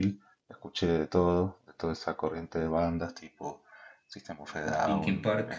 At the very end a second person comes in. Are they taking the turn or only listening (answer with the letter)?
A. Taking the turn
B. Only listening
B